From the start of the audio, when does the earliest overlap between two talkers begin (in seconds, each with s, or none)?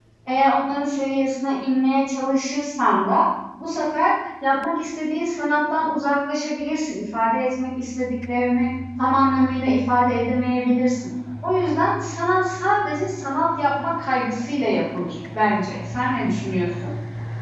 none